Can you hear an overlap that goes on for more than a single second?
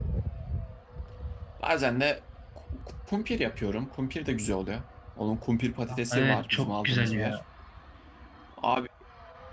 Yes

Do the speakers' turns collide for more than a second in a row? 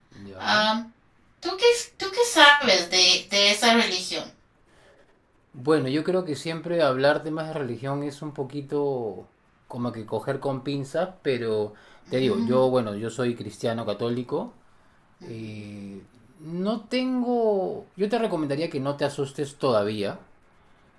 No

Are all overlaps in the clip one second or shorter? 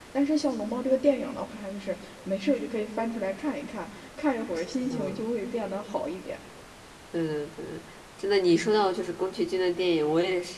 Yes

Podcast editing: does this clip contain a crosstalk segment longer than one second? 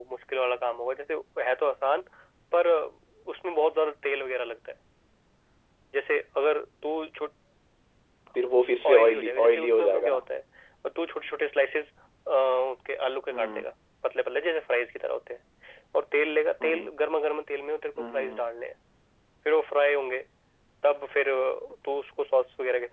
Yes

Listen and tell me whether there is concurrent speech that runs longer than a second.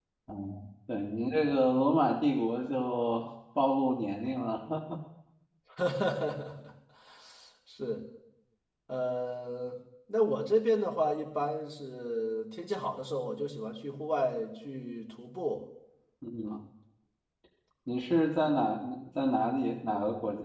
No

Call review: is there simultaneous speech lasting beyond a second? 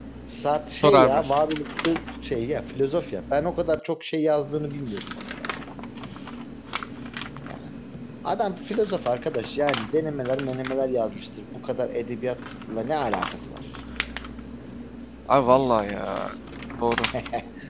No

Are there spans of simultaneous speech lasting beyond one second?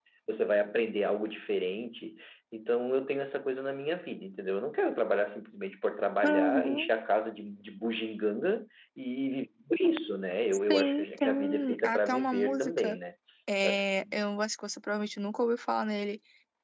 Yes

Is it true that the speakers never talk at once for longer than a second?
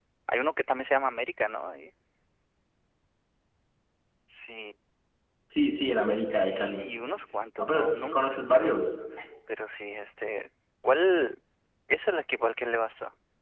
No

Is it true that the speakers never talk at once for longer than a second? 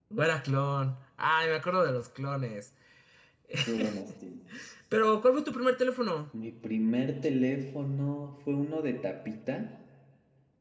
Yes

